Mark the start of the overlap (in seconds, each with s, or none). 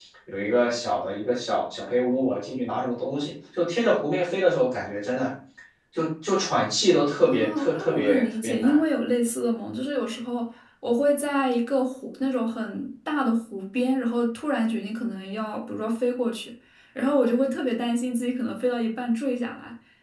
7.2 s